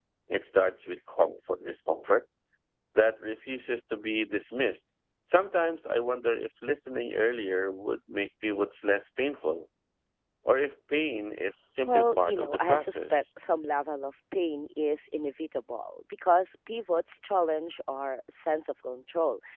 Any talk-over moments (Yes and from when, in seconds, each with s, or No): Yes, from 11.9 s